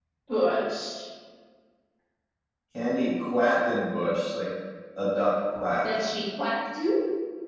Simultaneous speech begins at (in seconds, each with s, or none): none